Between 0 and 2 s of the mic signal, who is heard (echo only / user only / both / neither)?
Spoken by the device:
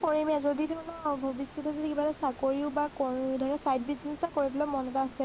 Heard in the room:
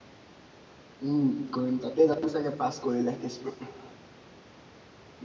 user only